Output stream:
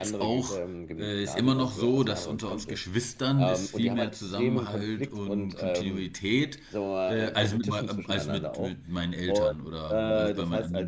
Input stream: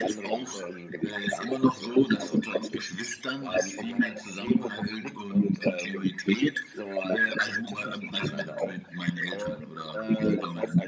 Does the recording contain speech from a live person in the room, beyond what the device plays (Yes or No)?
No